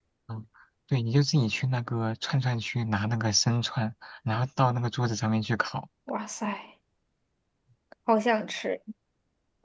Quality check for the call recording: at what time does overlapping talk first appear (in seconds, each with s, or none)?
none